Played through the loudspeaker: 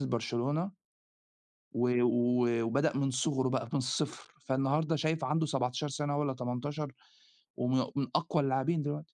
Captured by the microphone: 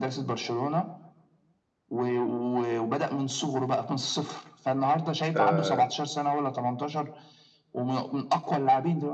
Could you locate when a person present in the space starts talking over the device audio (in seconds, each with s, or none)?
5.3 s